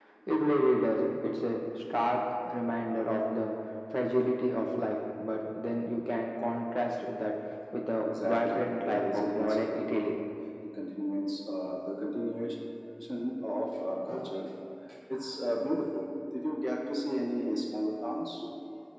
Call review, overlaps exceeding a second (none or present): present